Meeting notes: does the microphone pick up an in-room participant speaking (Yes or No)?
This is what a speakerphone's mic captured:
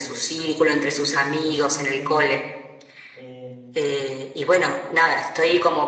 Yes